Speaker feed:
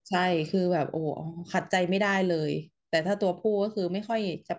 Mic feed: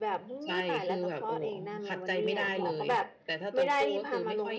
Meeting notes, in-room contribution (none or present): present